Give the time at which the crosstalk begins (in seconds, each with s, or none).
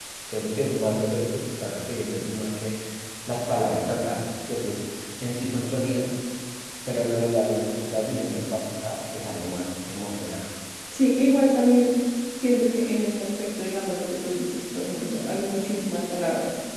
none